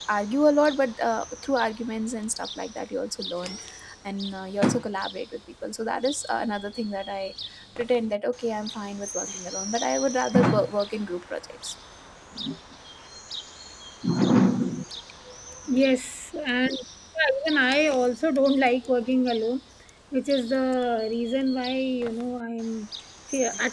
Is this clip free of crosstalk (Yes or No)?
Yes